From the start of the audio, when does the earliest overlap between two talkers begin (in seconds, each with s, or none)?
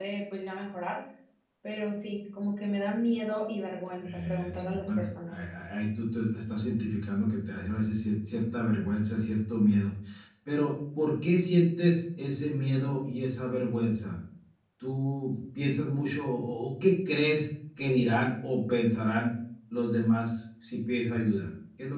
4.0 s